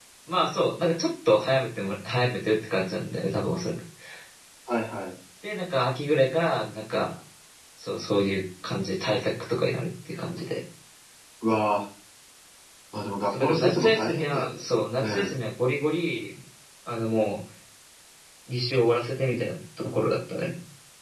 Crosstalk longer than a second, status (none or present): present